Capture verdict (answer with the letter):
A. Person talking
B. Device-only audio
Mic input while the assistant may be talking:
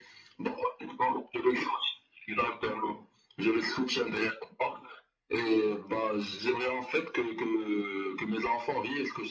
B